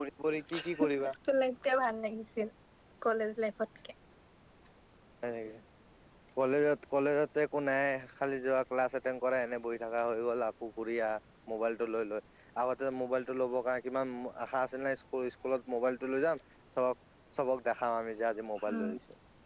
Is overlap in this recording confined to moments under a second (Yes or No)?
Yes